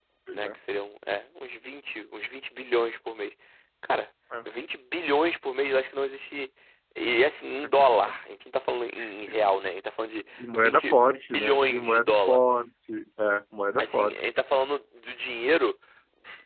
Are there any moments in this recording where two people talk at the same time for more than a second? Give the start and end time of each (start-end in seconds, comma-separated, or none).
10.5-12.4